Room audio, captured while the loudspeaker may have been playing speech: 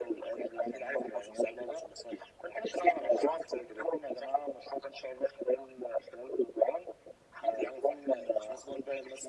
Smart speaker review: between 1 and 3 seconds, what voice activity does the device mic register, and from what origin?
echo only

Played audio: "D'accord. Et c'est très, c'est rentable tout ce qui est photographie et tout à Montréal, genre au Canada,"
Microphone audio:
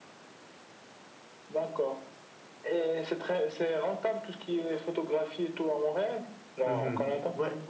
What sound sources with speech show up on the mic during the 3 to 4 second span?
echo only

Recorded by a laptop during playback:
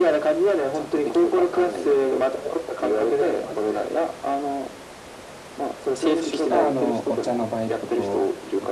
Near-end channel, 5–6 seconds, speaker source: echo only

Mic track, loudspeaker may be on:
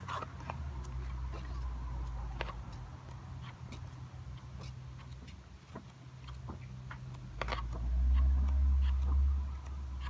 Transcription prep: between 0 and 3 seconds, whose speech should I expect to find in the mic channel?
neither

